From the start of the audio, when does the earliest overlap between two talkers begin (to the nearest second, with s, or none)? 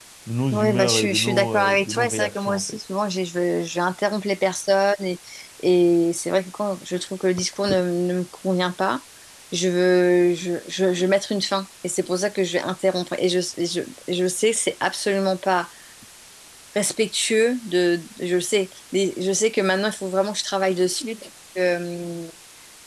1 s